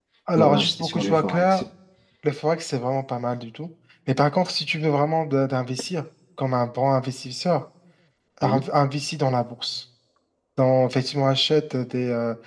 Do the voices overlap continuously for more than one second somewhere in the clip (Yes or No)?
Yes